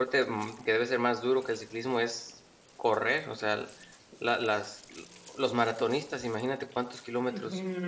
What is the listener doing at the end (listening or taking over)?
taking over